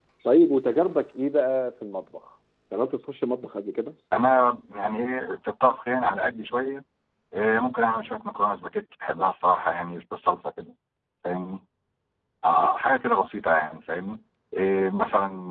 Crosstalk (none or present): none